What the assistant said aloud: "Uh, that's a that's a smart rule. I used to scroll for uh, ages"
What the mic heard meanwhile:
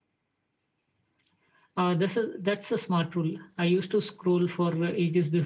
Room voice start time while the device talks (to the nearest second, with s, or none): none